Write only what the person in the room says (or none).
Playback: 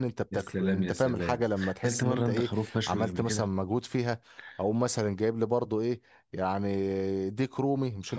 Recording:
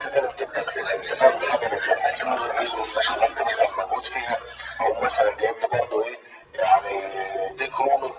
none